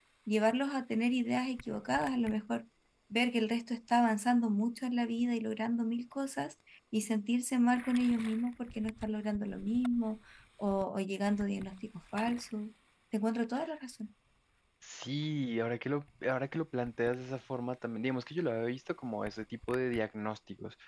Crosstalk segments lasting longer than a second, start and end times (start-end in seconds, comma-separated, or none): none